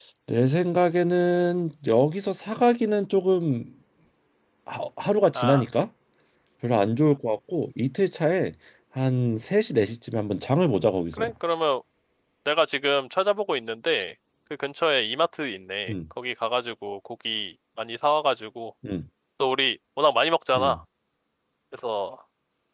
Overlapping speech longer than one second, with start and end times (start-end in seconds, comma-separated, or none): none